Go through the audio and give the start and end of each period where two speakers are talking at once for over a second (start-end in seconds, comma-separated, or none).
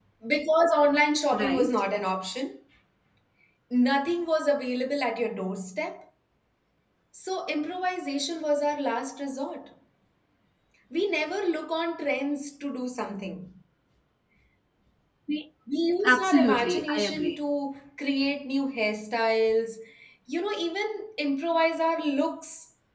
16.0-17.4